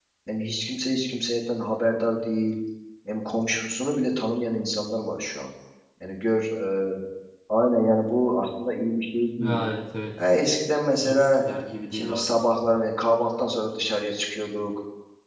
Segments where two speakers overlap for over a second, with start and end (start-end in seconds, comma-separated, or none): none